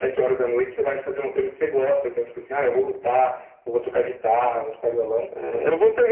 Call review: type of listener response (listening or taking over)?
taking over